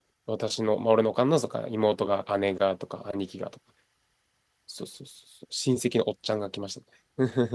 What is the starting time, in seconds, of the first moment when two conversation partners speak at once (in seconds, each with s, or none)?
none